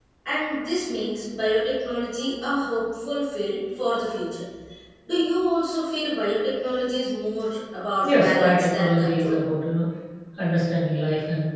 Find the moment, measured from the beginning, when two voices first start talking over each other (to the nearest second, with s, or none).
8 s